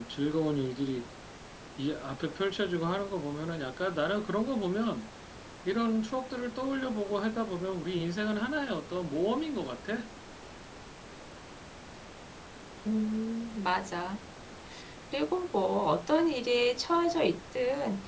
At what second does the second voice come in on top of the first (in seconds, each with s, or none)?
none